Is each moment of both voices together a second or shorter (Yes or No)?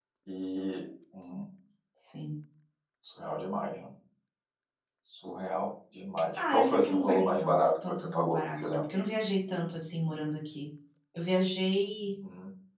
No